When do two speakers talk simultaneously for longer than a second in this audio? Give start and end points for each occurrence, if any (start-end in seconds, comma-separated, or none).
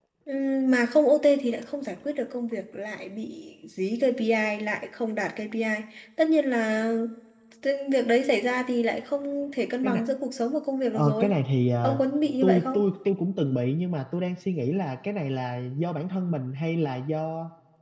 none